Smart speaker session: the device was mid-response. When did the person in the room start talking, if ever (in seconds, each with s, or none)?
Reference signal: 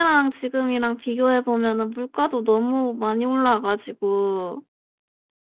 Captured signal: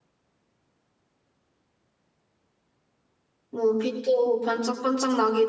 3.5 s